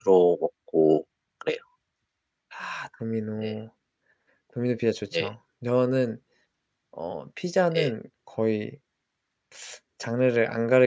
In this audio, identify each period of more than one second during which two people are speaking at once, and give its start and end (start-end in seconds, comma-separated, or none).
none